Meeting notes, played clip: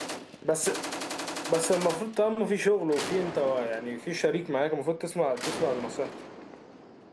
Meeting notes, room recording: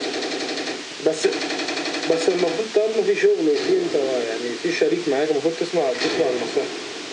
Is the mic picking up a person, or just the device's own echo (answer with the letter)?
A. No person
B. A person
A